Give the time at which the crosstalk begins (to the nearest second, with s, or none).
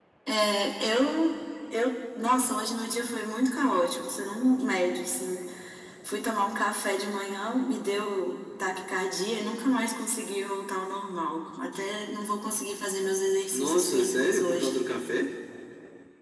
14 s